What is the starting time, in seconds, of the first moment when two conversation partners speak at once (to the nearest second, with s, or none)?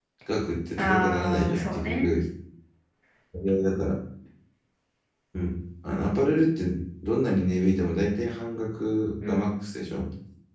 1 s